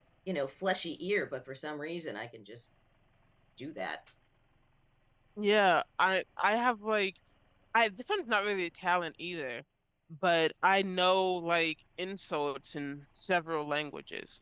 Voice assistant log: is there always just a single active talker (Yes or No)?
Yes